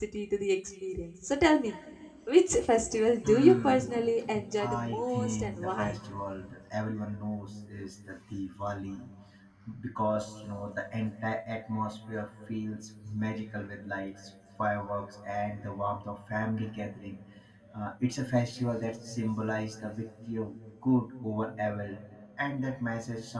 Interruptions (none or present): present